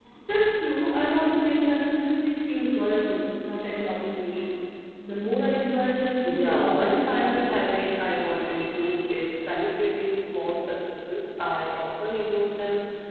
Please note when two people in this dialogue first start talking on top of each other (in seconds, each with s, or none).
6.2 s